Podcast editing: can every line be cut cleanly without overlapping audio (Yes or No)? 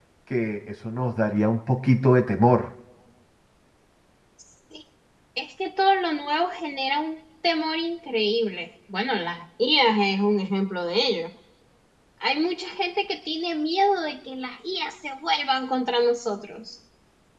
Yes